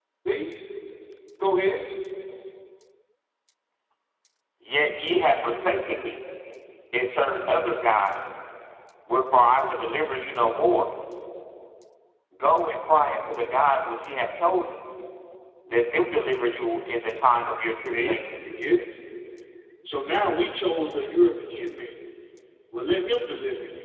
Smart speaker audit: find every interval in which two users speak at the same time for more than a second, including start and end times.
none

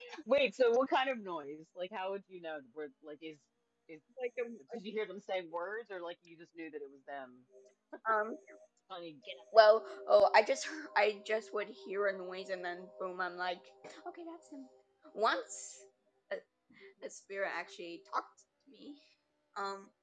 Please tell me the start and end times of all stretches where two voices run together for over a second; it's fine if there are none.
none

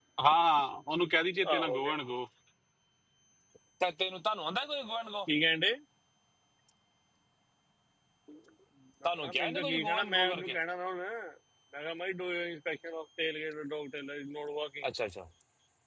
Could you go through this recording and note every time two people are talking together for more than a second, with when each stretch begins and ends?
9.0-10.6

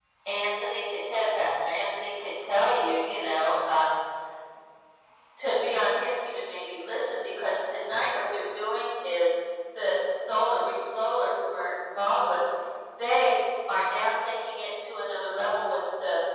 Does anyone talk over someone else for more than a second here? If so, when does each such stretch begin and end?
none

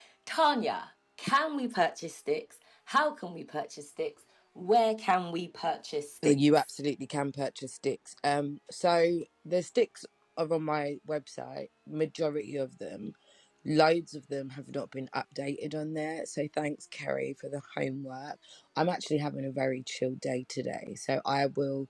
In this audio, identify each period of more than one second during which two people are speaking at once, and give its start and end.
none

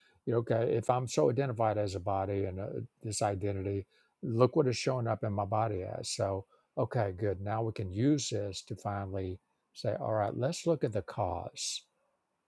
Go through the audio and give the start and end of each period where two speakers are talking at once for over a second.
none

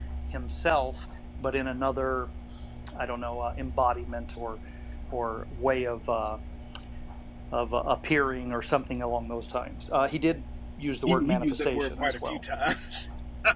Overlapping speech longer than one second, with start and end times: 11.1-12.4

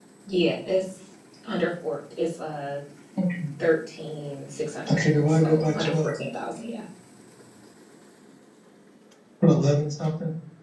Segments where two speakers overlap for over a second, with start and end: 4.9-6.1

